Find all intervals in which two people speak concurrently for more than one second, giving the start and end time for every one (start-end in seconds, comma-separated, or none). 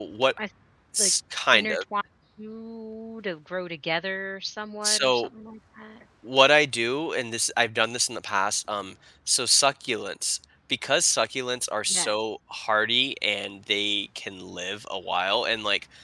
none